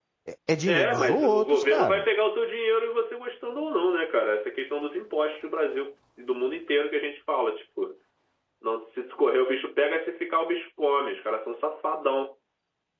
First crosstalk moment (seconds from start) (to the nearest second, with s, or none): 1 s